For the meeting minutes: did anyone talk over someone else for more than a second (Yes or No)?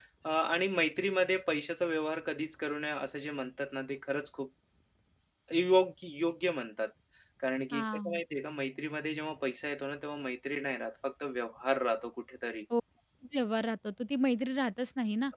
No